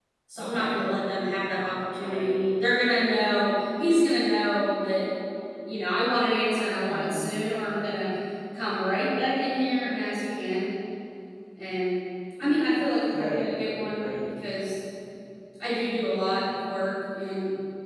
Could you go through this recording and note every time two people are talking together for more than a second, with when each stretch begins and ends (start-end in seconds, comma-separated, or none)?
none